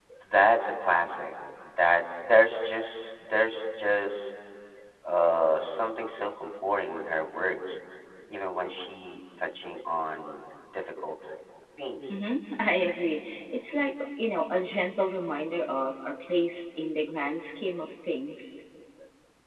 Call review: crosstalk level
none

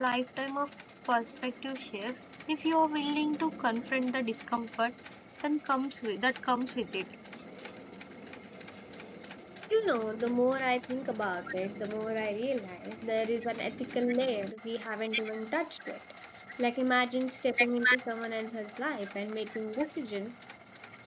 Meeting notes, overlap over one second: none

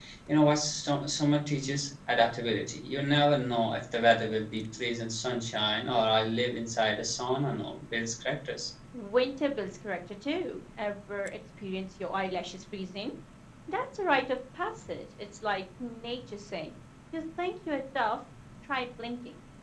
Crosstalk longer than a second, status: none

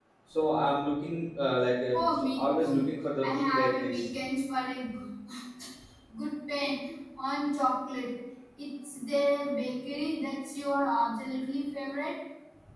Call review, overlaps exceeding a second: present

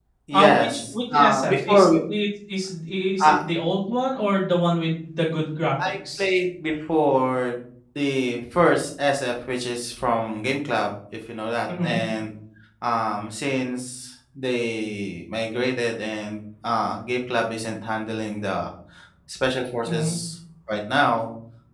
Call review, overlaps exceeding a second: present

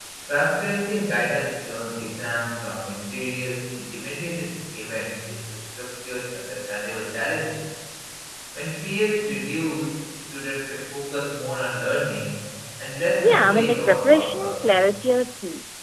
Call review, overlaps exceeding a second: present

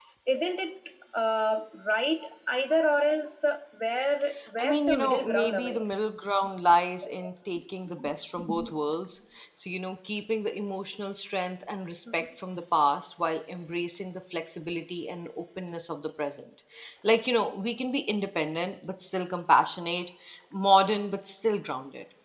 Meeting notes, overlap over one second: present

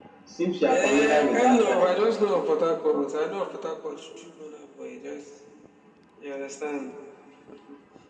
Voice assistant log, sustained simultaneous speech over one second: present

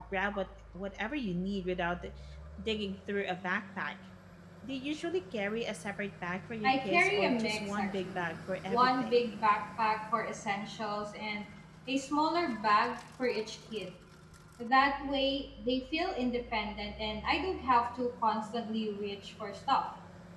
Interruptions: present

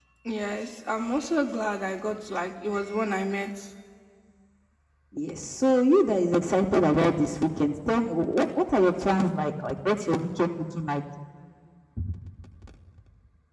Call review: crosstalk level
none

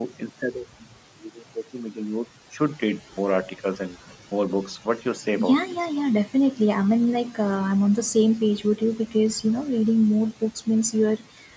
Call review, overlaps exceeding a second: none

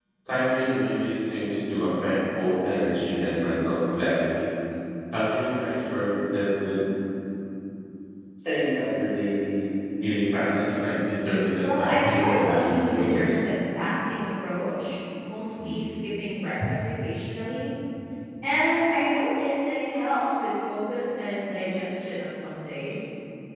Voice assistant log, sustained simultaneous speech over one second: present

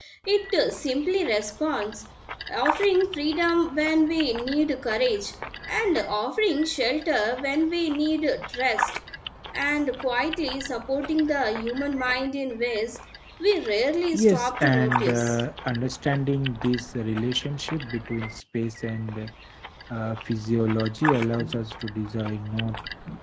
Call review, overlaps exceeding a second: present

